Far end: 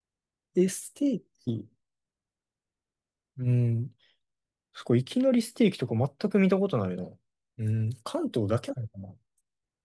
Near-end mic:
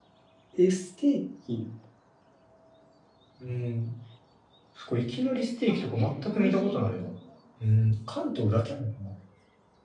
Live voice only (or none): あ、え、同じ。